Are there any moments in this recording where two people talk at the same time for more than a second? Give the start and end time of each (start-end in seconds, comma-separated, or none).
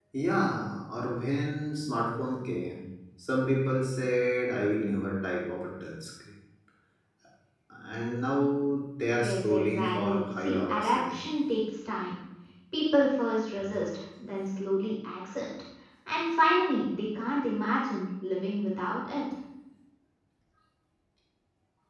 9.2-11.2